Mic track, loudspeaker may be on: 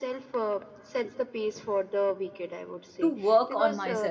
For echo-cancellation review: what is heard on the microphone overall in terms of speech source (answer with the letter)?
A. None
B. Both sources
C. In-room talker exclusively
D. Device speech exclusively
B